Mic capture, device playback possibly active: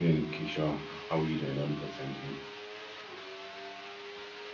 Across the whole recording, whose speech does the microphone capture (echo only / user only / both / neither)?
user only